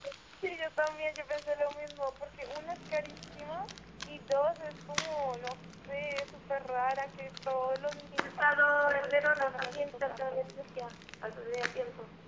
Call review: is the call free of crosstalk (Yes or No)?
No